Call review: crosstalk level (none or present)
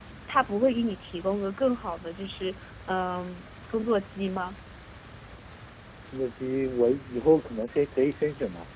none